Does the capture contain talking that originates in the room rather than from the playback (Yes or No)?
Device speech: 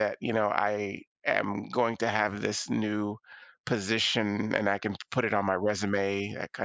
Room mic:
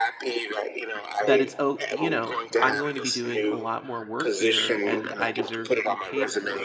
Yes